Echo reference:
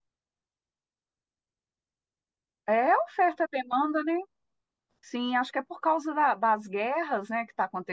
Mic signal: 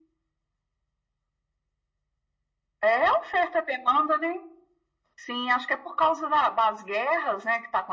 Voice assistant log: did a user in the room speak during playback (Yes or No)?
No